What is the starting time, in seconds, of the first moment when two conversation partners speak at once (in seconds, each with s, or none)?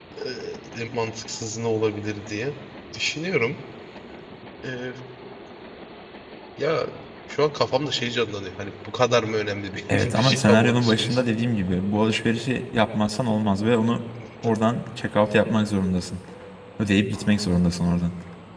9.9 s